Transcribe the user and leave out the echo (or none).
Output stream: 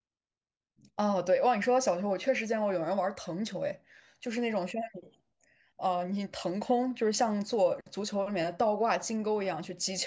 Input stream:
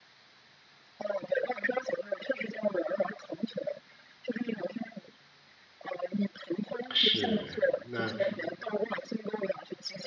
是，那